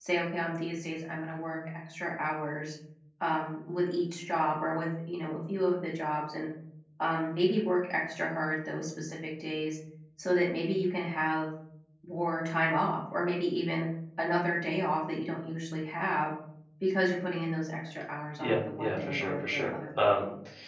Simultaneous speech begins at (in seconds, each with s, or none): 18.4 s